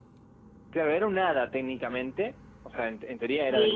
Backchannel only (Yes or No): No